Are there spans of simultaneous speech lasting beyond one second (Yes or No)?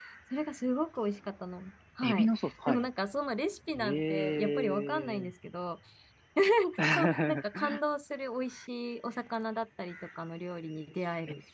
Yes